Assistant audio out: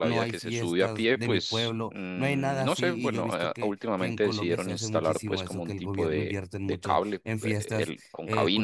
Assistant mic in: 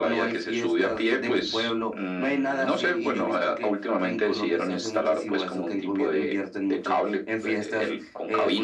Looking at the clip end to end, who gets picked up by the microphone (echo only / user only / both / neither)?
echo only